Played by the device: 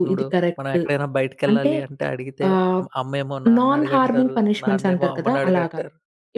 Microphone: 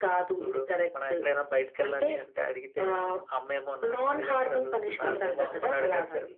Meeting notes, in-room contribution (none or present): present